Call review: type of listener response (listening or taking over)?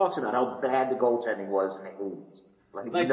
taking over